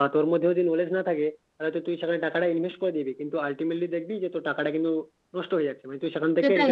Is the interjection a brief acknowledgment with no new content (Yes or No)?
No